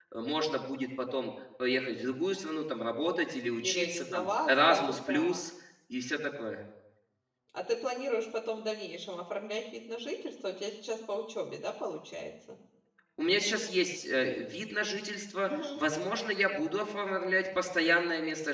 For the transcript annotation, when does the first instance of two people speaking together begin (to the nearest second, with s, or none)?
4 s